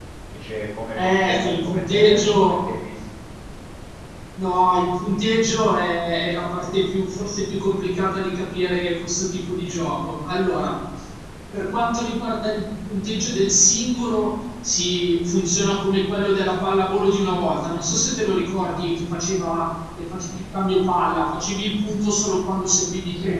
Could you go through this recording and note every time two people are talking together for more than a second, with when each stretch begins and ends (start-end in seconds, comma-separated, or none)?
1.0-2.7